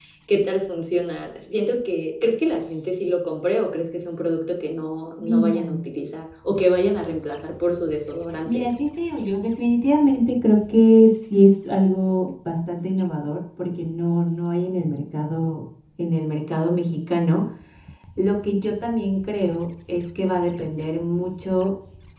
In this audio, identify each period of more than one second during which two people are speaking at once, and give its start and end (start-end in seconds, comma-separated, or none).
none